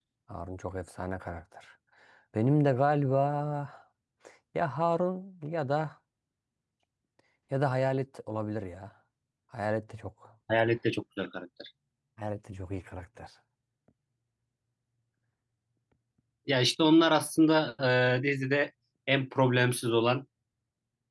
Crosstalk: none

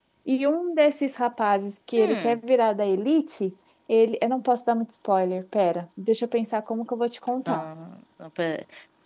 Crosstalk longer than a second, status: none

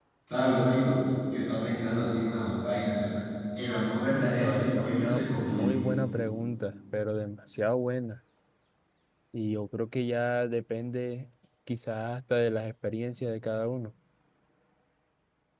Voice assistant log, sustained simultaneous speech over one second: present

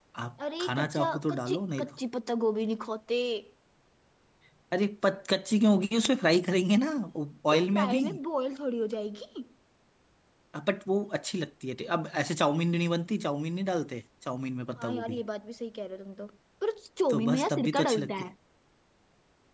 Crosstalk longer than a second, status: present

